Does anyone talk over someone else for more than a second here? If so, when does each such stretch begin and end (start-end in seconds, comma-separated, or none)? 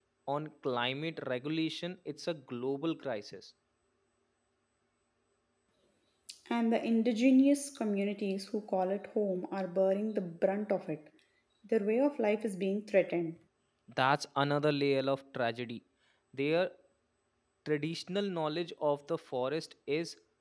none